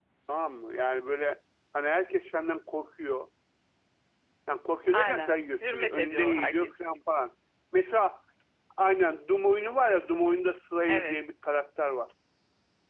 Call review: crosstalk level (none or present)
present